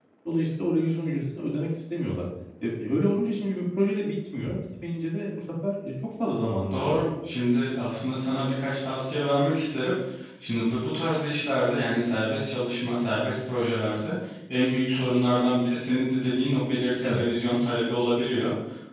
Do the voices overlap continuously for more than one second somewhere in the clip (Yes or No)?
No